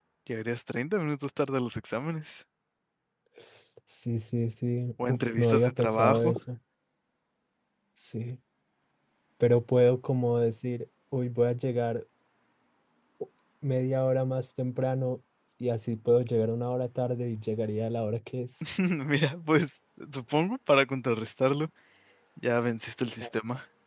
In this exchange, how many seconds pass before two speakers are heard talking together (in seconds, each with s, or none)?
5.0 s